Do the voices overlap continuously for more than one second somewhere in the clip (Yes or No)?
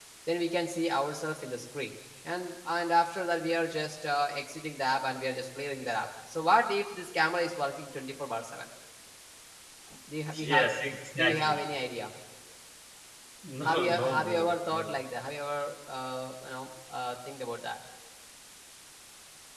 Yes